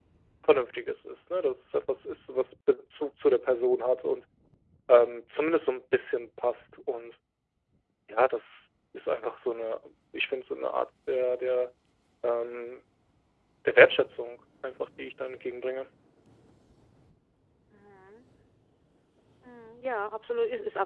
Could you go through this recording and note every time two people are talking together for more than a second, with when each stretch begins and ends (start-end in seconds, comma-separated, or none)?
none